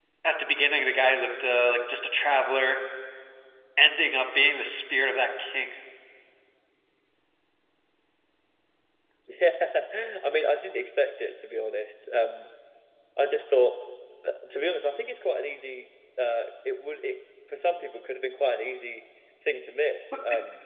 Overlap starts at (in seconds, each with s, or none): none